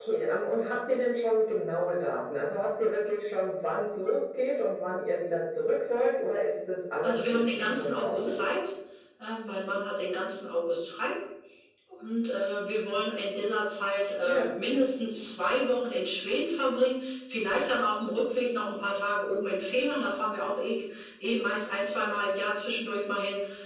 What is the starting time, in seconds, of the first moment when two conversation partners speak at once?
7.0 s

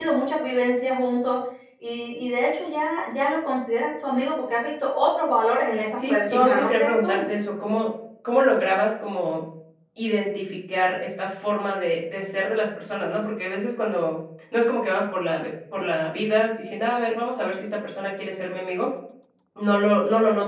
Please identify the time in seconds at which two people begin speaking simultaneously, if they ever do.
6.0 s

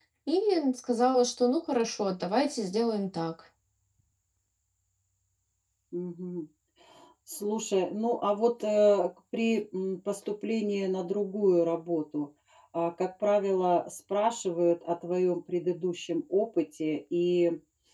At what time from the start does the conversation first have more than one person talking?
none

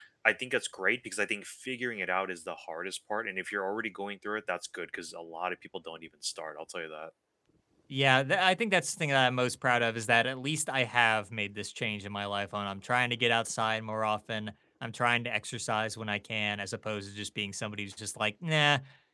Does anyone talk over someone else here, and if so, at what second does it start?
none

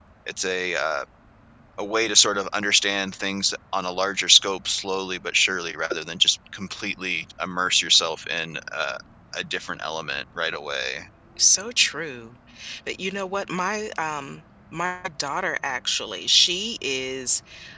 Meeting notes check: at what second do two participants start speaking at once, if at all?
none

